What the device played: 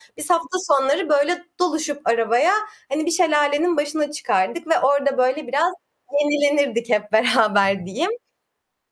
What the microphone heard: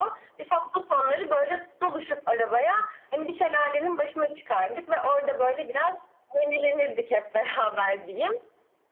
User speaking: No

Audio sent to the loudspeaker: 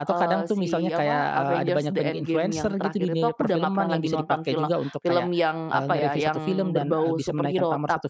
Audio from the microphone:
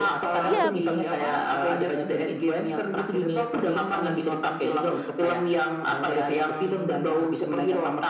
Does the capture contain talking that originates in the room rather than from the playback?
Yes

